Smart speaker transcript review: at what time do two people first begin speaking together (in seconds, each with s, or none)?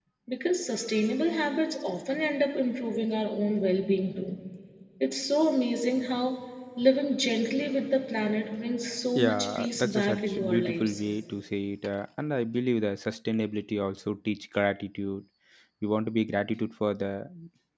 9.2 s